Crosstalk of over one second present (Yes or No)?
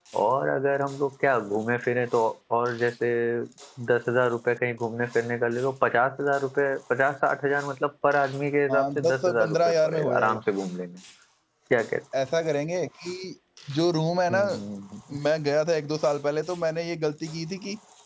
Yes